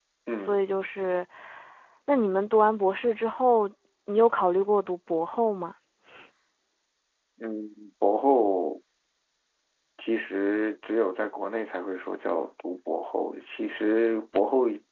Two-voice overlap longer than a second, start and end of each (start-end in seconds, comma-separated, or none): none